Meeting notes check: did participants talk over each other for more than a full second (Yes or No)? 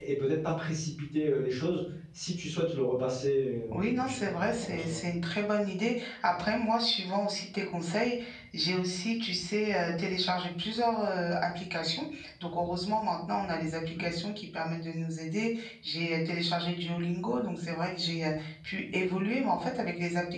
Yes